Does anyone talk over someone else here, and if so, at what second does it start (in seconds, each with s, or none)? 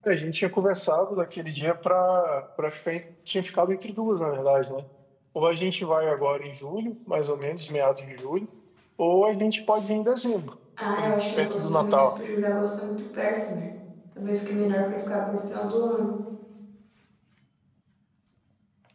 11.0 s